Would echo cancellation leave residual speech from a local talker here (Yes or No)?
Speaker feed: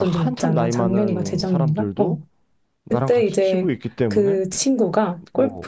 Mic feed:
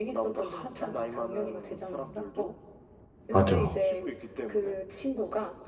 Yes